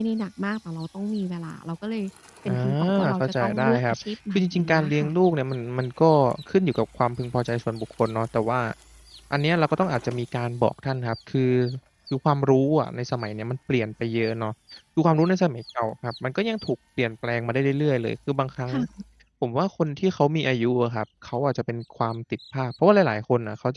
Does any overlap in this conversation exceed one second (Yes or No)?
Yes